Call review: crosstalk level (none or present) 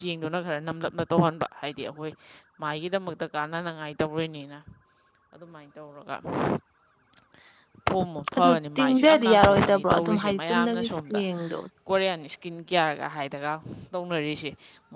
present